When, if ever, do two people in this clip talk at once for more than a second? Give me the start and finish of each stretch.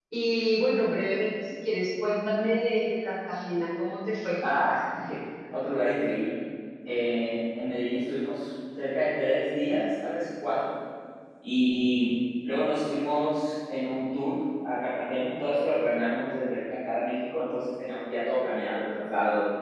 none

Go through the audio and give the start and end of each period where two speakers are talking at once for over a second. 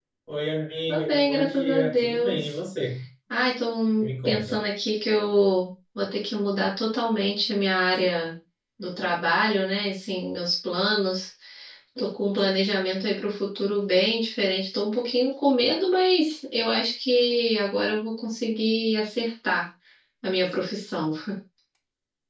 0.9-2.5

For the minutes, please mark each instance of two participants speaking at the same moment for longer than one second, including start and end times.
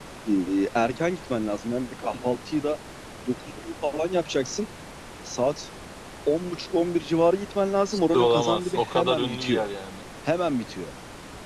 8.1-9.7

